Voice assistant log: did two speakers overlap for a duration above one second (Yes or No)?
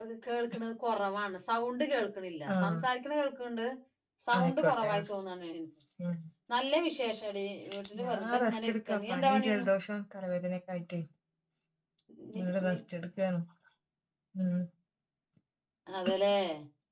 Yes